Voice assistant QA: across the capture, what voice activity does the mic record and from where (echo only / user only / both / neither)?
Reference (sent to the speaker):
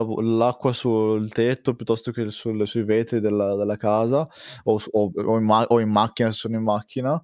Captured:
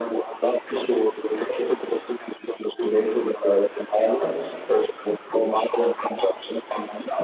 echo only